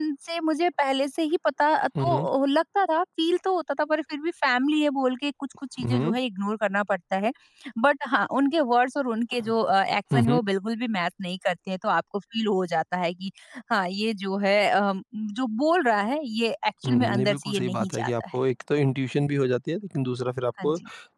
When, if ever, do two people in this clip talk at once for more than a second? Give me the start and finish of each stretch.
16.9-18.4

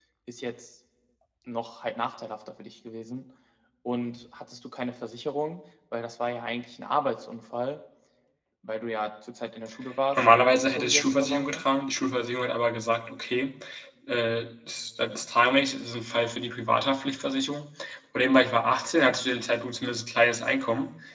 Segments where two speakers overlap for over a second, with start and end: 10.2-11.6

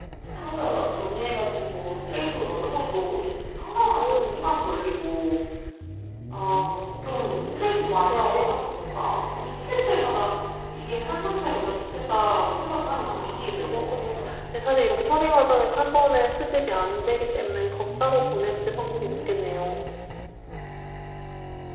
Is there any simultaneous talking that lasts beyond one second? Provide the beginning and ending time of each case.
13.0-14.4

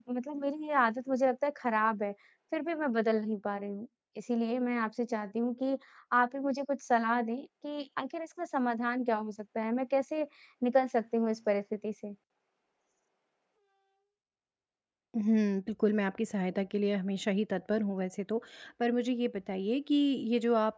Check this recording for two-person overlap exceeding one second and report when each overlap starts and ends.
none

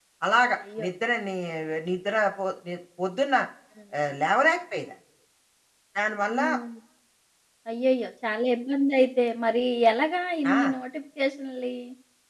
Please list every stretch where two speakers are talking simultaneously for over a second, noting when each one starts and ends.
none

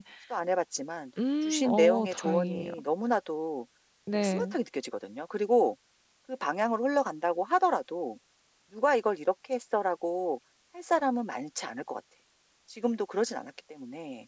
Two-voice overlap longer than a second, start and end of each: 1.4-2.7

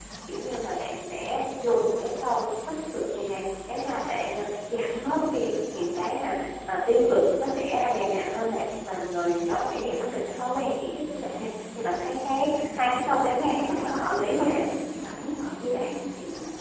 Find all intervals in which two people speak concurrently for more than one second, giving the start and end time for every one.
12.4-14.6

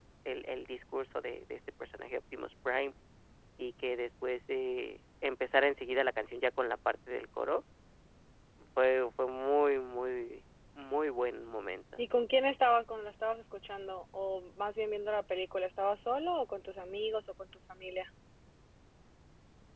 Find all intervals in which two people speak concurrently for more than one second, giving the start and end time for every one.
none

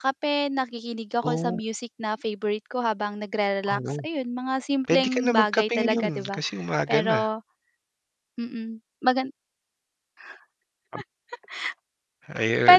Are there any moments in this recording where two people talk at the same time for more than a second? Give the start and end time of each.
4.9-6.4

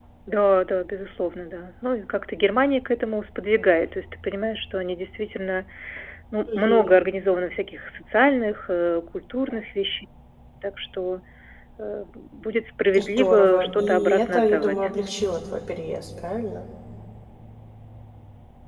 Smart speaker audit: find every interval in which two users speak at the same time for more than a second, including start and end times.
13.0-14.8

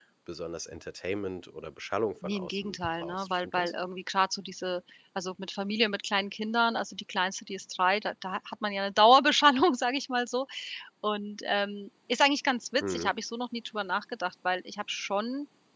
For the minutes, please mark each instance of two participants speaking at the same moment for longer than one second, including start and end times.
2.2-3.7

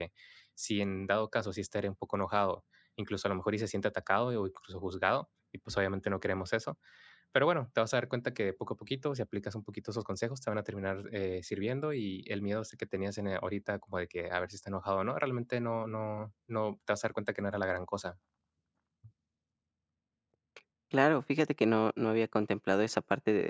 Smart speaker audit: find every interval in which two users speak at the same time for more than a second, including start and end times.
none

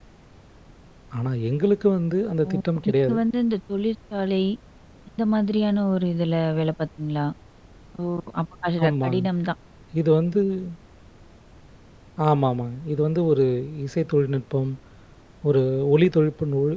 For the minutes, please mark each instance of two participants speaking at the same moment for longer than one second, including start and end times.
none

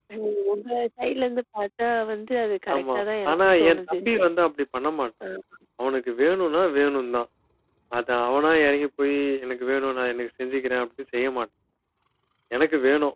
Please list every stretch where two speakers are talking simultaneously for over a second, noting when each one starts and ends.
2.7-4.0

